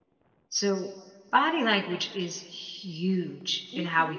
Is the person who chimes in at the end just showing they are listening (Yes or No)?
Yes